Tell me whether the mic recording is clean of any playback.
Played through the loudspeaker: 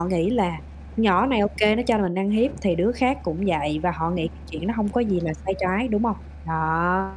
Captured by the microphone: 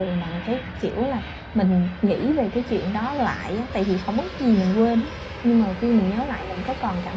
Yes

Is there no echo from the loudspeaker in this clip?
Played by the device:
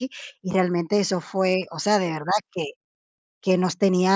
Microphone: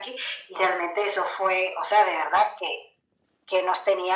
No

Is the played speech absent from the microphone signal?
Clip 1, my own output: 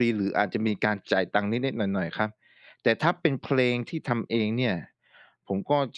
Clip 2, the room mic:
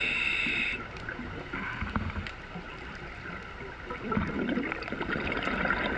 Yes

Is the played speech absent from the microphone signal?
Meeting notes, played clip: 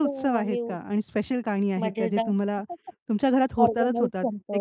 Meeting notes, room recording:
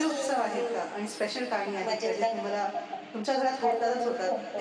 No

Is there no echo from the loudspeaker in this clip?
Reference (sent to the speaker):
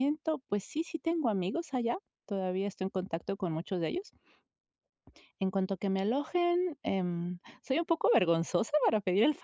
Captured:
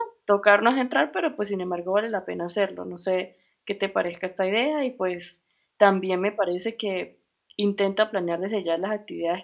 Yes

